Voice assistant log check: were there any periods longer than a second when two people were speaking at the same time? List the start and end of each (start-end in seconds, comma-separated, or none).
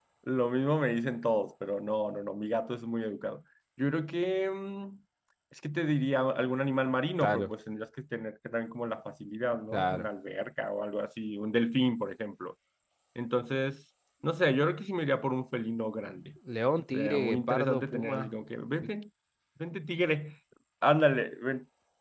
16.9-18.3